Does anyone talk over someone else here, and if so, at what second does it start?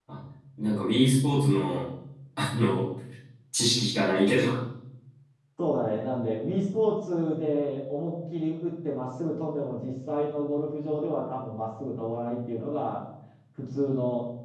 none

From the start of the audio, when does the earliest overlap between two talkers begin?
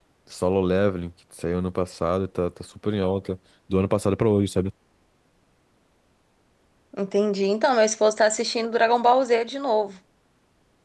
none

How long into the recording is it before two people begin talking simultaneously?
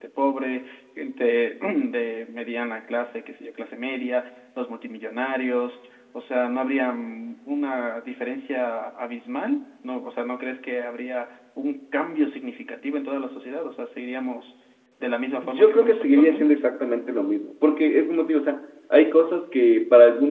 15.3 s

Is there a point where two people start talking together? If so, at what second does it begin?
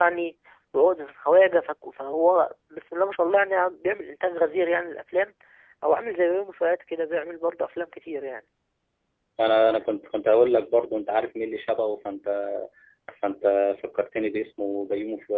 none

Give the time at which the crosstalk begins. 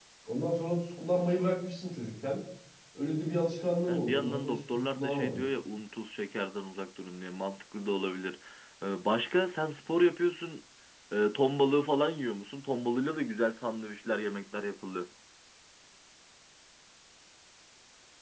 3.9 s

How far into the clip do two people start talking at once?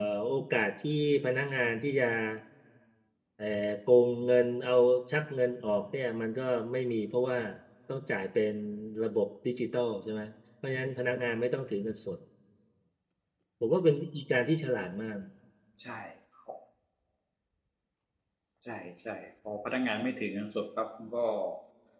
none

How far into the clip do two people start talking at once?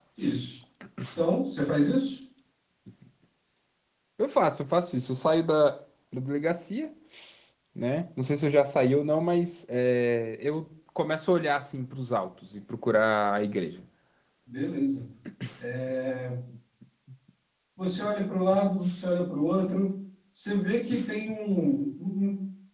none

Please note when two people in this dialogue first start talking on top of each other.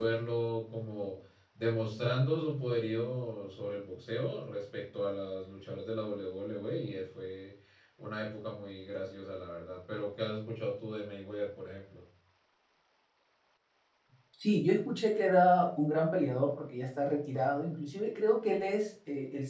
none

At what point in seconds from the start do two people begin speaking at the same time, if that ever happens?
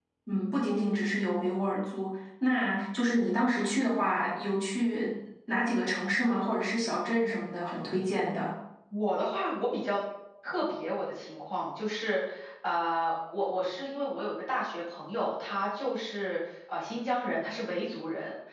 none

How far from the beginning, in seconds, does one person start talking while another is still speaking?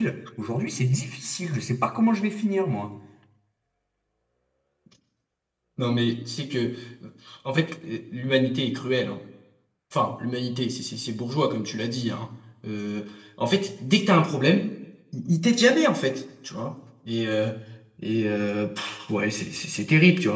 none

